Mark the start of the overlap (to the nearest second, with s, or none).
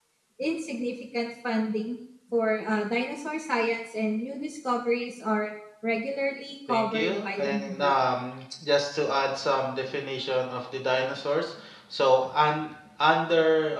7 s